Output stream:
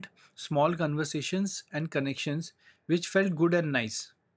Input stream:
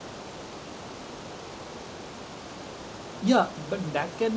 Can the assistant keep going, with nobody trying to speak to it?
No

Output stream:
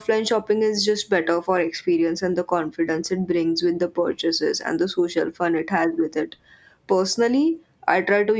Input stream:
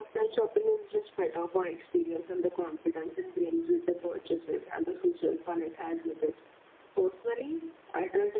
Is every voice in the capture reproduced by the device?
Yes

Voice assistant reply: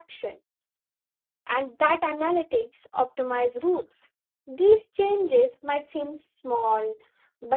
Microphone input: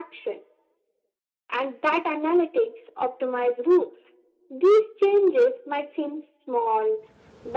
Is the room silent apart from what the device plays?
Yes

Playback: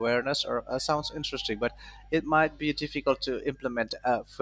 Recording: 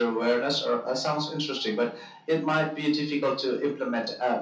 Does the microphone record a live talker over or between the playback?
No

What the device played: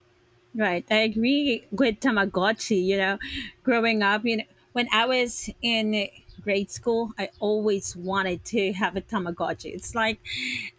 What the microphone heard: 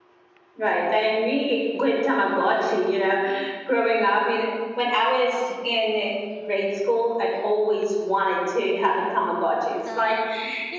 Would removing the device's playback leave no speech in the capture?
No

